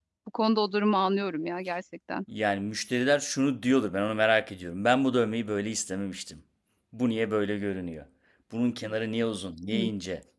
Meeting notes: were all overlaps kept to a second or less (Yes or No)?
Yes